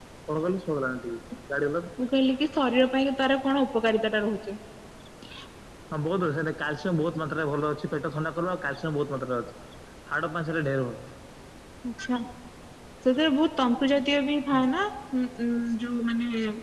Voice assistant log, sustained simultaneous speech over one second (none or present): none